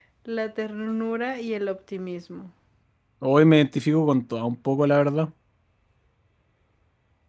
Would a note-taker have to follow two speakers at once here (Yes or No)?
No